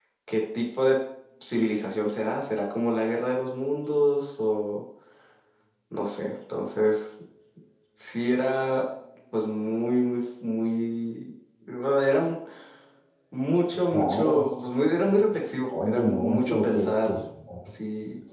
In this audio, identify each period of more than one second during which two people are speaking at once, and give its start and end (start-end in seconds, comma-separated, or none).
15.8-17.1